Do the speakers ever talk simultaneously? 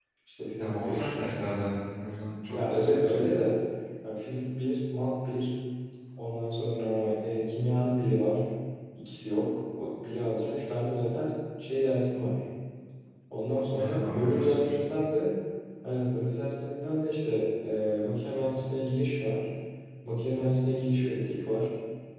Yes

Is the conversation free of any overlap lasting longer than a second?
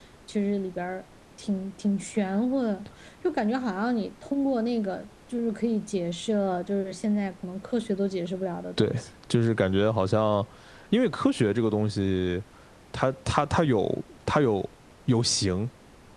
Yes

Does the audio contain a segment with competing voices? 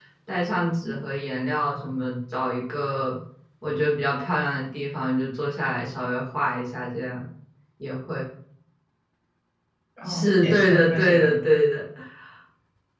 Yes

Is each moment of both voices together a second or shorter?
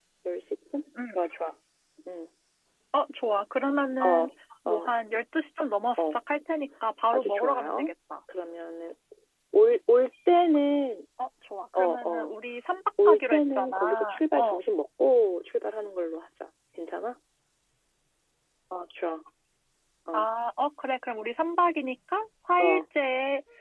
No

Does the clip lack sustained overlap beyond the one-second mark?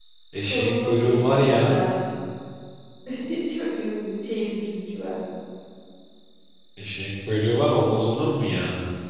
No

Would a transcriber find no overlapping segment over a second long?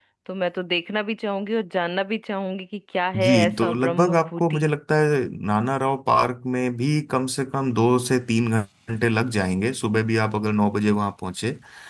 No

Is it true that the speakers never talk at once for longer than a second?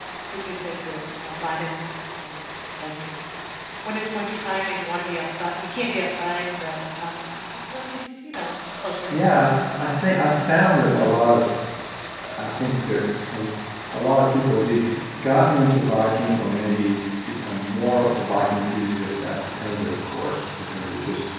Yes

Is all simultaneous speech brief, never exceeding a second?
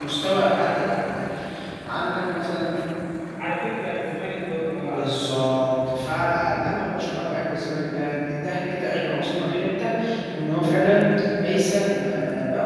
Yes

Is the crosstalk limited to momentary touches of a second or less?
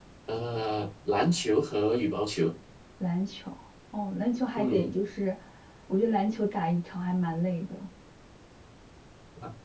Yes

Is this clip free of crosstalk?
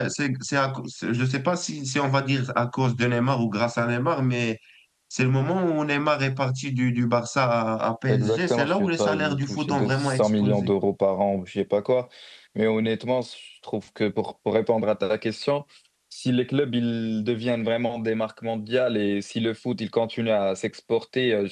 No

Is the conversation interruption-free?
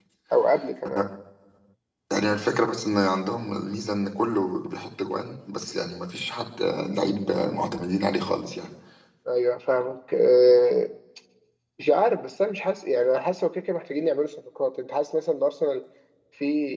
Yes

